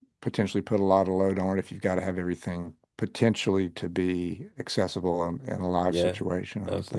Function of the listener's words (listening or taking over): taking over